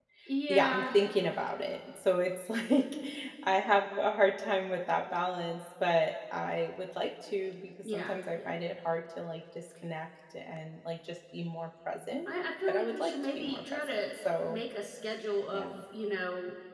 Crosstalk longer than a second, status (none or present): present